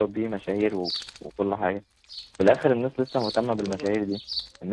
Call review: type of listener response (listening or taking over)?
listening